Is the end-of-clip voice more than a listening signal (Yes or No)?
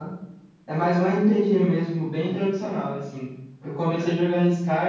No